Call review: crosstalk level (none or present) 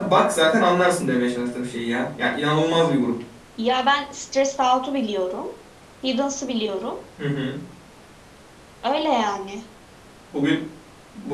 none